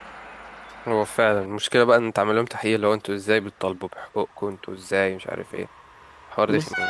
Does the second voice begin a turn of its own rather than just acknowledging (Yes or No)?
Yes